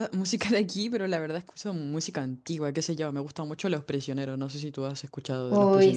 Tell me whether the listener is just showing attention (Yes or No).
No